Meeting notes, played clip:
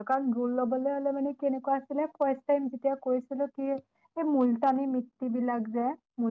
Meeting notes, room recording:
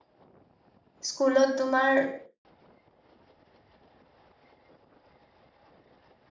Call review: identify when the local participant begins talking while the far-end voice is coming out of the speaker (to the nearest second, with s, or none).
1 s